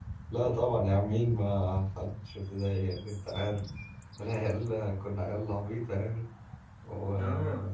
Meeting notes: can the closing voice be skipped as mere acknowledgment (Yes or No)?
Yes